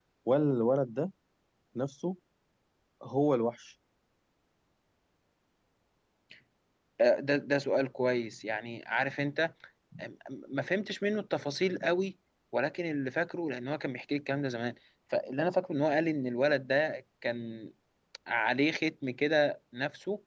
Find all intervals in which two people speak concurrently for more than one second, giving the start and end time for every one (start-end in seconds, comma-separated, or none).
none